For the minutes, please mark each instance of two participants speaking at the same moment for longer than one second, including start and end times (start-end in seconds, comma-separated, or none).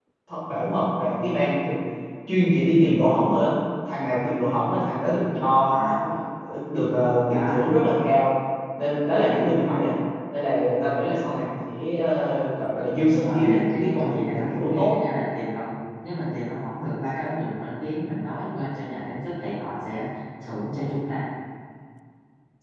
13.1-14.9